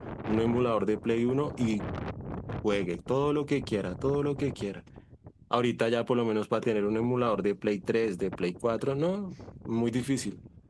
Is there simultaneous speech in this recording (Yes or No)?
No